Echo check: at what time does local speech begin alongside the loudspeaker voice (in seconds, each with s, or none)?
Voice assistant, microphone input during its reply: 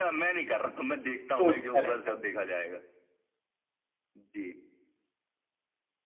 1.4 s